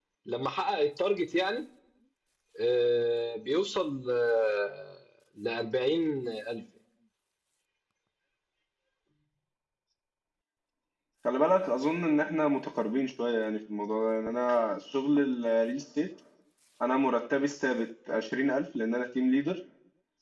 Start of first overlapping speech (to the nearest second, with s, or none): none